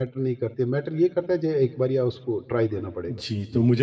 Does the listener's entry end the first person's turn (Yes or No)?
Yes